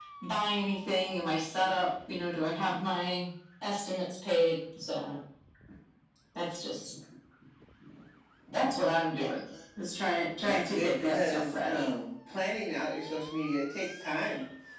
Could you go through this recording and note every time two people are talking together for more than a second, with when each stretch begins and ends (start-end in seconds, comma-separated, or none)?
10.4-11.9